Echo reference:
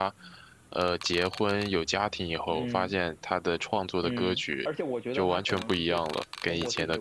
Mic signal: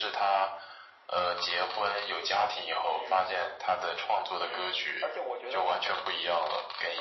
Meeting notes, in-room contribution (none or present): none